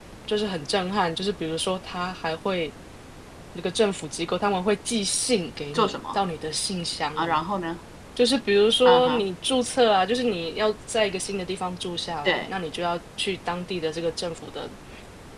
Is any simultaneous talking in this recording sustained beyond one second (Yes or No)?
No